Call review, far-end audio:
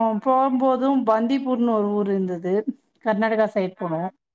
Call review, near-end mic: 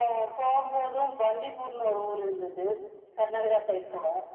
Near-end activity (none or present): none